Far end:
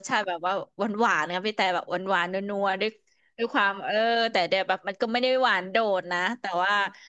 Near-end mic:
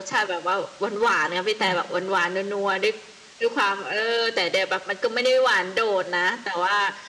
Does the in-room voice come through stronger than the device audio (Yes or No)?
No